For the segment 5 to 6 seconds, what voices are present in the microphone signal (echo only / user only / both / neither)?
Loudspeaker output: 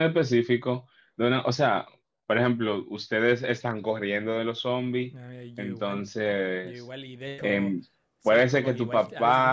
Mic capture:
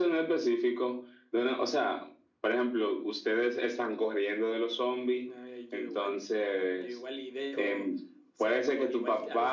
echo only